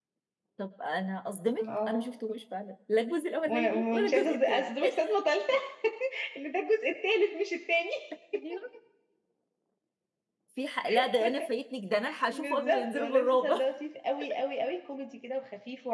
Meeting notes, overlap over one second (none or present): present